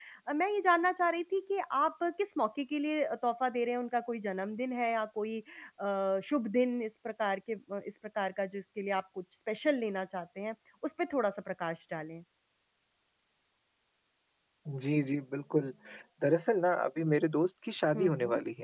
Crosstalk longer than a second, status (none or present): none